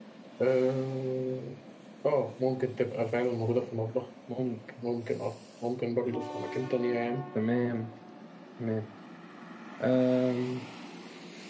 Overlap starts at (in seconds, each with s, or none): none